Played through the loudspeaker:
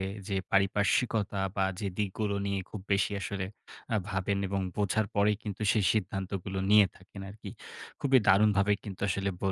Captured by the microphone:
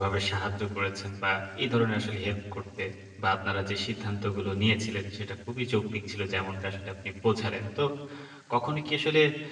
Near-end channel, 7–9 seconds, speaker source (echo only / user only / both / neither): user only